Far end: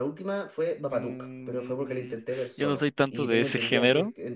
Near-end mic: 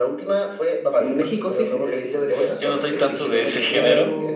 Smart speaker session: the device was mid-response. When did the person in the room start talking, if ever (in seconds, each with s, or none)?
1.0 s